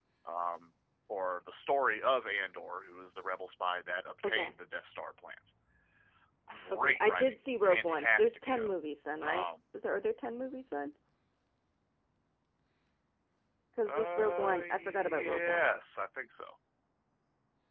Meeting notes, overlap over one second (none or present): present